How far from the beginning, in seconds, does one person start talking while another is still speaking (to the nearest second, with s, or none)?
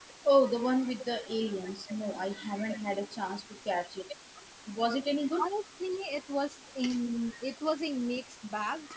none